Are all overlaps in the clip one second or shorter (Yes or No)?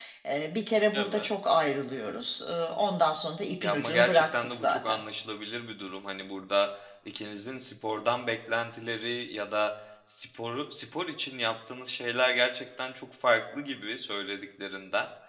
No